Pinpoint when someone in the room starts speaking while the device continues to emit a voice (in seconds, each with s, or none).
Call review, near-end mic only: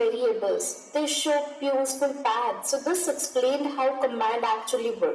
none